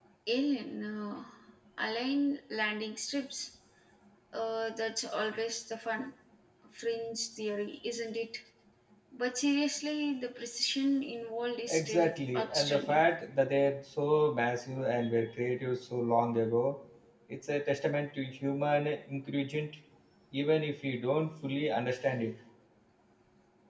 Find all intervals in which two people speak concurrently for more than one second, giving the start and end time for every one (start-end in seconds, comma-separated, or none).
11.7-13.1